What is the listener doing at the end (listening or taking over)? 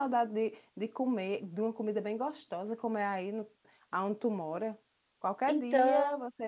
listening